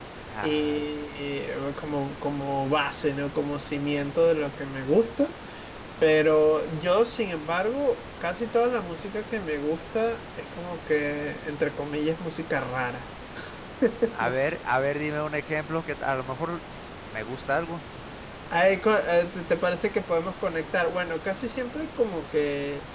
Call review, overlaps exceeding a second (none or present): none